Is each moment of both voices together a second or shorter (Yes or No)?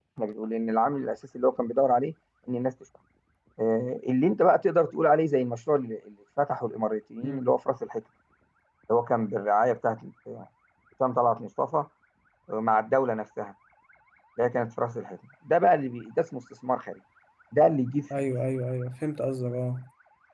Yes